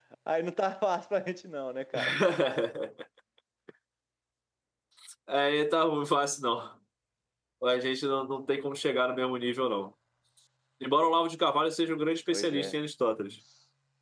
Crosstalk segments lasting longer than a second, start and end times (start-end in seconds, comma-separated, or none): none